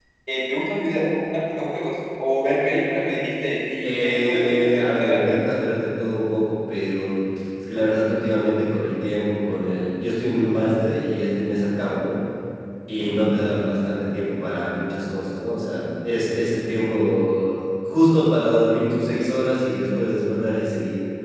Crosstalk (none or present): present